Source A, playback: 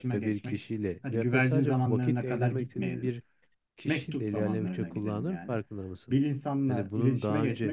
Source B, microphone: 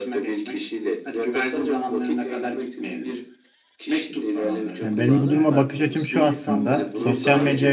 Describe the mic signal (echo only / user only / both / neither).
both